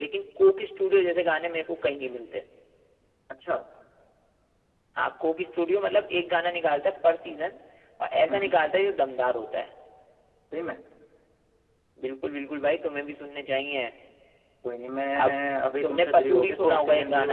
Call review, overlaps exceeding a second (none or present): present